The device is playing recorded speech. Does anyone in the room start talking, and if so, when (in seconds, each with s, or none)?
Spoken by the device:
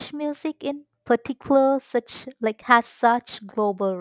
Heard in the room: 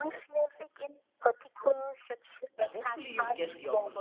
2.5 s